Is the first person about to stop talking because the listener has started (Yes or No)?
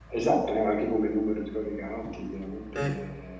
No